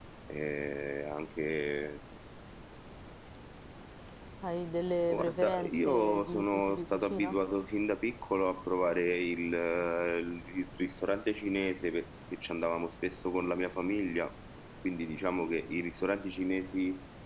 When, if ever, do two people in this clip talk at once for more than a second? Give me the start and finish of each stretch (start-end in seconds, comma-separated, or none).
5.1-7.4